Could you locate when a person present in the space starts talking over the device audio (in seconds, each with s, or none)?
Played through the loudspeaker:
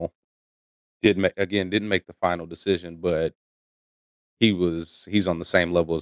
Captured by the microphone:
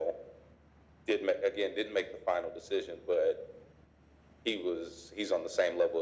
none